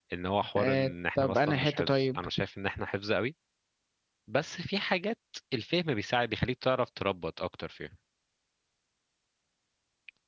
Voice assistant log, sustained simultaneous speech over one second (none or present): present